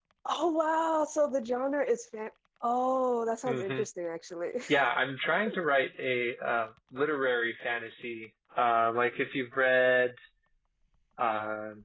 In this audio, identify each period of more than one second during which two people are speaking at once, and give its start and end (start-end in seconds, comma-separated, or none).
none